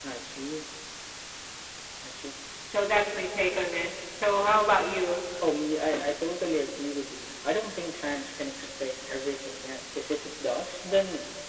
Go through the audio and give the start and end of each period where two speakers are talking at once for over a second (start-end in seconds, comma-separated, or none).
none